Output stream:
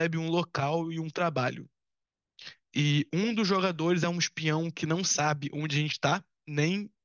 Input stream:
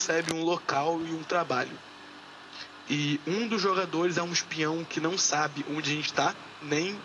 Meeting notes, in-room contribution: none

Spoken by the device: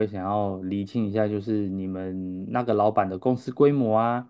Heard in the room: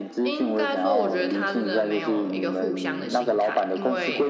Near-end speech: present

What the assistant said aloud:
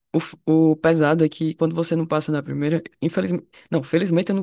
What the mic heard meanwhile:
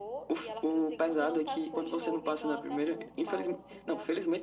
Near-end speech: present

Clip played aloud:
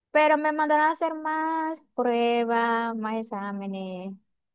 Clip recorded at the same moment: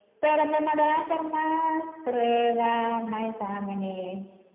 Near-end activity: none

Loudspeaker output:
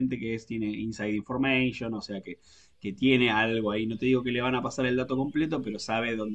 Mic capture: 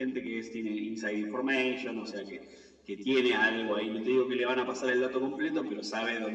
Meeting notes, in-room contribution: none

